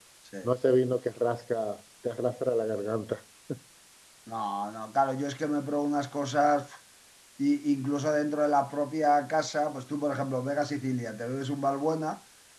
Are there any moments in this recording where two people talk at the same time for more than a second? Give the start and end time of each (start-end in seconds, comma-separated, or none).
none